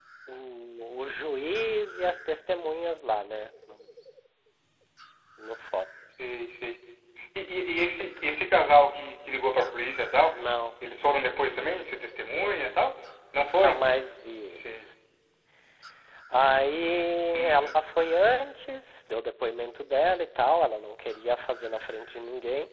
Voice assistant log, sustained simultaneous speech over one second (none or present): none